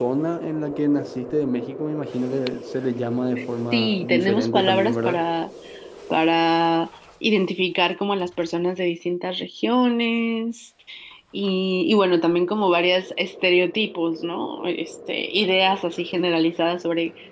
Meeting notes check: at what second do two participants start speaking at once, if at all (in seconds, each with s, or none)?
3.7 s